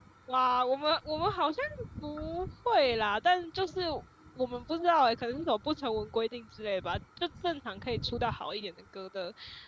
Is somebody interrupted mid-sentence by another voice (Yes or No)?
No